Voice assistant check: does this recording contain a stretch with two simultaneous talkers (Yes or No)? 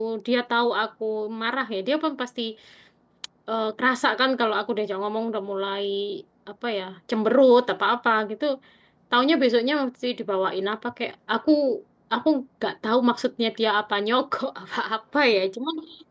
No